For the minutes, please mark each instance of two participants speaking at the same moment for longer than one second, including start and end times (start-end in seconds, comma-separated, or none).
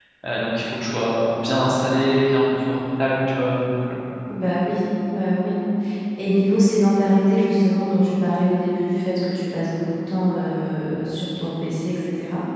none